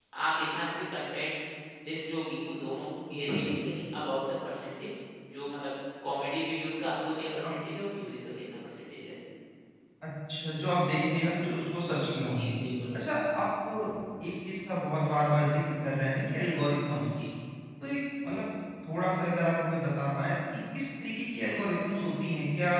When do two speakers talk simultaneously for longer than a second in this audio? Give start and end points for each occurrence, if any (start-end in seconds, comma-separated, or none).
none